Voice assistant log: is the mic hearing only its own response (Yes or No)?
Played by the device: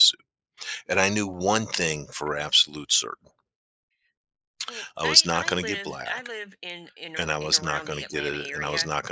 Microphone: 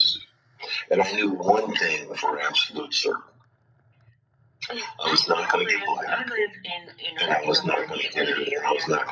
Yes